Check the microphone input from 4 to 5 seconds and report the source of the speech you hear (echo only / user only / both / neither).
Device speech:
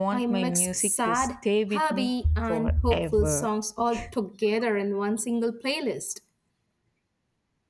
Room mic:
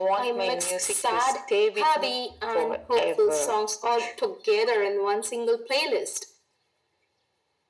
echo only